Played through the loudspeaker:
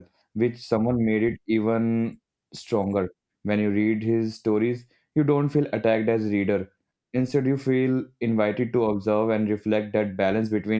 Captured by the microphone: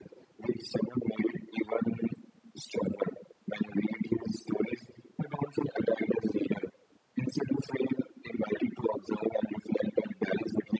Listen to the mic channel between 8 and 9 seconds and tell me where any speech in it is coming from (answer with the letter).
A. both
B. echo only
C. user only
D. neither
B